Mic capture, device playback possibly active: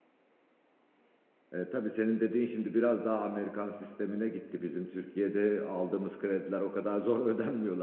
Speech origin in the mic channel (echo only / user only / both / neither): user only